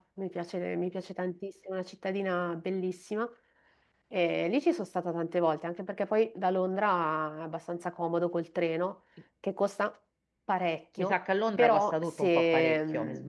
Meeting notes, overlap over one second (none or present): present